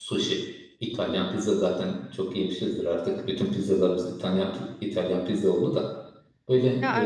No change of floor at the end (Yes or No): Yes